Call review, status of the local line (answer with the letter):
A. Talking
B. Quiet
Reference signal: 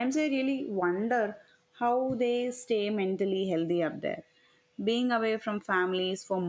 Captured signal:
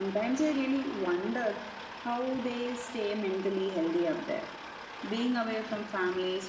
B